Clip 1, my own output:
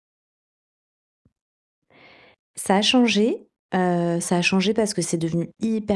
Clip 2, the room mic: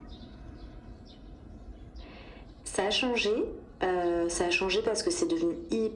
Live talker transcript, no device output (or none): none